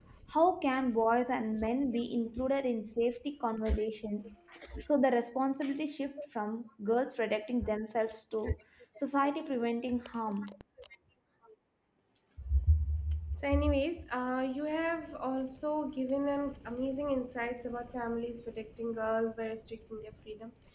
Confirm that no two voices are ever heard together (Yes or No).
Yes